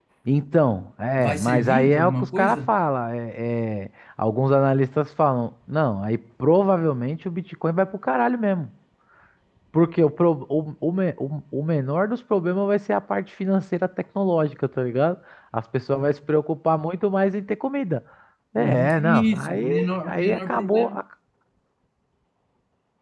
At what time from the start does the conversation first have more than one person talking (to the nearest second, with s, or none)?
1 s